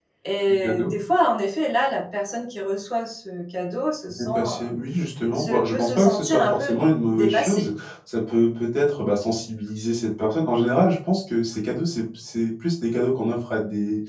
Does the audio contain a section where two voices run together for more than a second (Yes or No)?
Yes